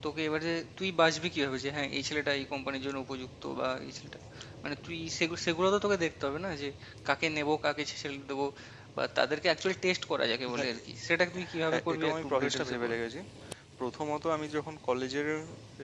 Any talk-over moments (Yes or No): Yes